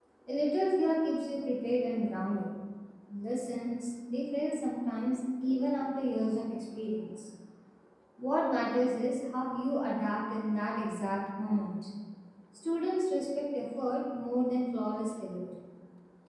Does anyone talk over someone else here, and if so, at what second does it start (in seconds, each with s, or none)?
none